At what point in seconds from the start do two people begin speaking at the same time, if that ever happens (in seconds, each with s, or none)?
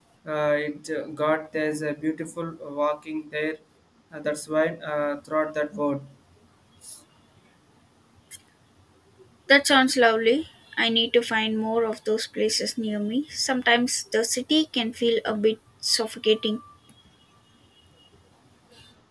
none